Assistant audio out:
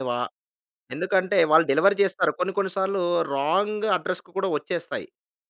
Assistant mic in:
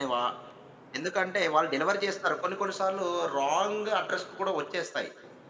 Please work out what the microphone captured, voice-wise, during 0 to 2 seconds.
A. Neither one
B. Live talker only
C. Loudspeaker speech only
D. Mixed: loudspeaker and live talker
C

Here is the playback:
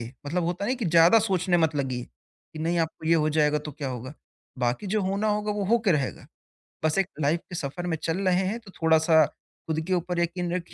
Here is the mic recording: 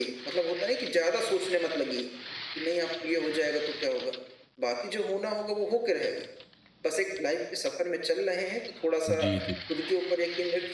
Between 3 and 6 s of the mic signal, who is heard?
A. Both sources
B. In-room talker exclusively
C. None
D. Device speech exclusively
D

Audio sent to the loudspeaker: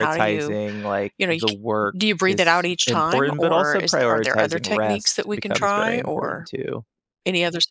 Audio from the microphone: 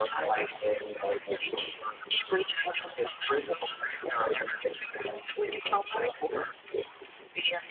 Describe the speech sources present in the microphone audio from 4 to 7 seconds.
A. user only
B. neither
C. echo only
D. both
C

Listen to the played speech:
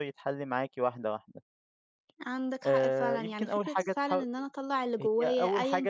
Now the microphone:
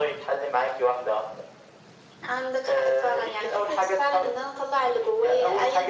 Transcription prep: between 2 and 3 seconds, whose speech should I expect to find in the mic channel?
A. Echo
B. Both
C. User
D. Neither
A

